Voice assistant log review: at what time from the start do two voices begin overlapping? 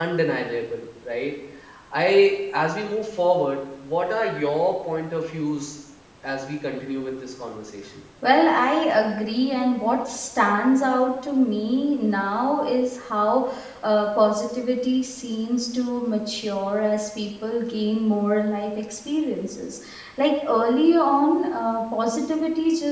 none

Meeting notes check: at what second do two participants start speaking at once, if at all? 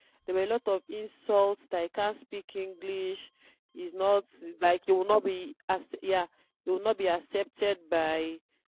none

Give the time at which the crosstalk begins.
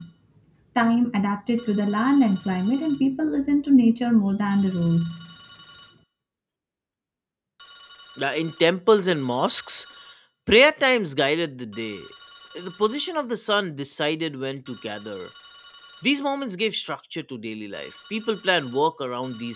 none

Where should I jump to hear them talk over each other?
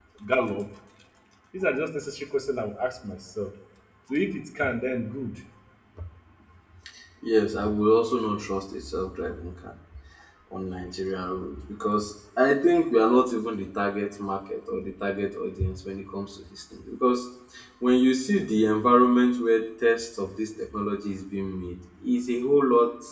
none

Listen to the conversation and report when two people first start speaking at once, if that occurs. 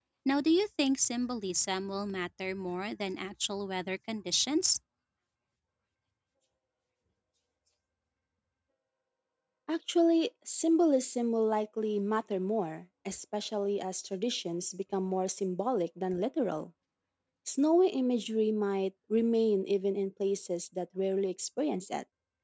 none

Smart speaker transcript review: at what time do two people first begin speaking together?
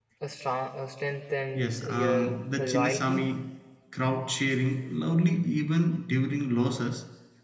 1.6 s

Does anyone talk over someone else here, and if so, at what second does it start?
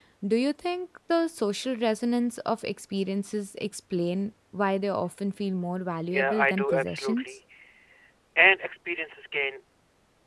6.1 s

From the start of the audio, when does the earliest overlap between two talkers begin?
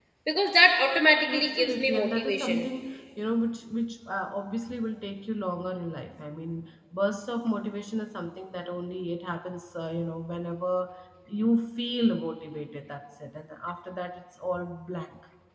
1.3 s

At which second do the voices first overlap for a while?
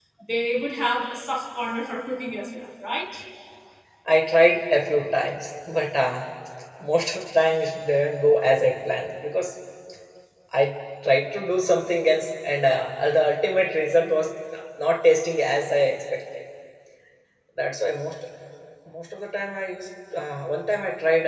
none

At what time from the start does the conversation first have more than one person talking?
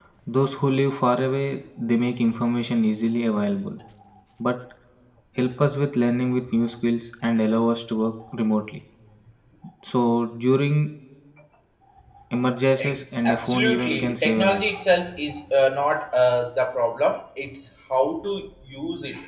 12.8 s

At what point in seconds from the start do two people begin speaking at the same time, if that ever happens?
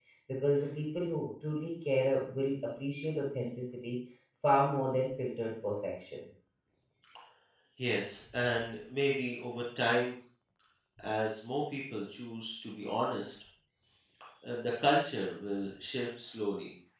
none

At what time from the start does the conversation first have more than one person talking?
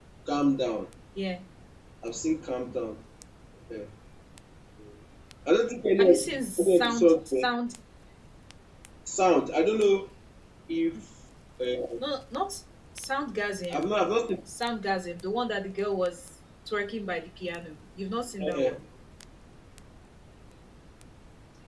6.0 s

